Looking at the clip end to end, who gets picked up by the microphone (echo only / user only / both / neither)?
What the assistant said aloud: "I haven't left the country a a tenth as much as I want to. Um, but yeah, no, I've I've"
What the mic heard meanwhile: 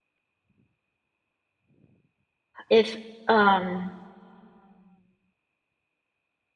user only